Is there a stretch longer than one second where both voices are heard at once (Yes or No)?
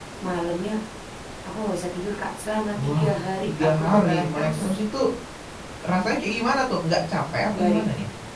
Yes